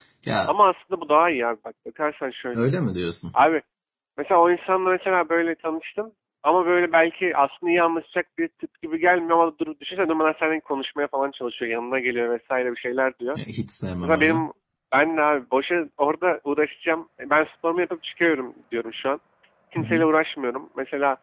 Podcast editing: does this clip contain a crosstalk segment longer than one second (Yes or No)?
No